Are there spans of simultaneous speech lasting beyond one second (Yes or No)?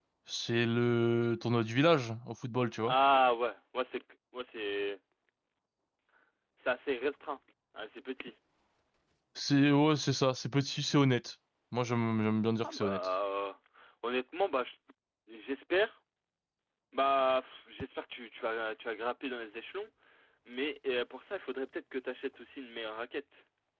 No